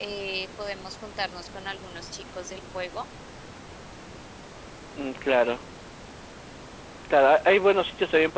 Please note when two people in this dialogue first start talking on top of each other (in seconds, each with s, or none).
none